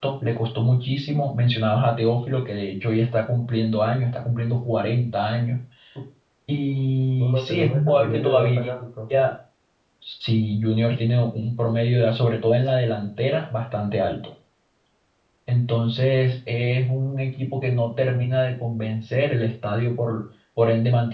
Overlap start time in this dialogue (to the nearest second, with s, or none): 7 s